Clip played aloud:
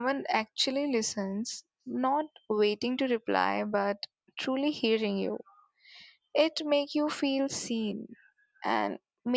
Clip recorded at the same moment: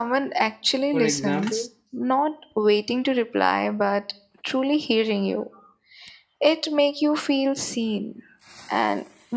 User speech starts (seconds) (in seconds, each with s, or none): 0.9 s